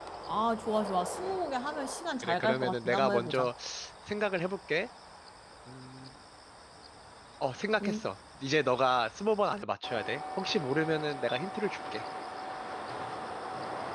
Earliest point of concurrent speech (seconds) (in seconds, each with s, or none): 2.2 s